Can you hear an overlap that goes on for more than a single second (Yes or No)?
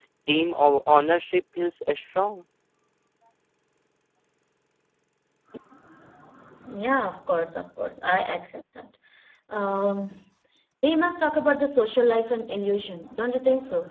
No